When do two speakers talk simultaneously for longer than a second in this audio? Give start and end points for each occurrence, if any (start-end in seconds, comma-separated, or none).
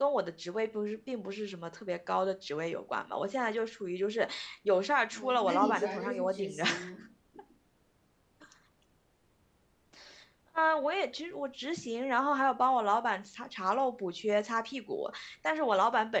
5.1-6.6